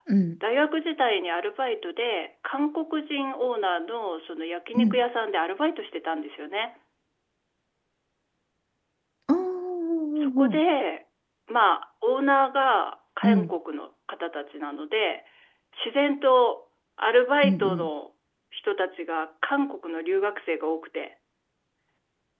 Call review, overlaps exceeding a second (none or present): none